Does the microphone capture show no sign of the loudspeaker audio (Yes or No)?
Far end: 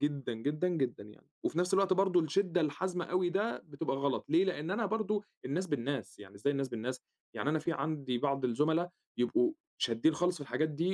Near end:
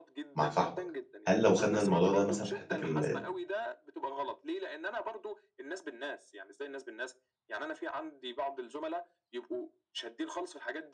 No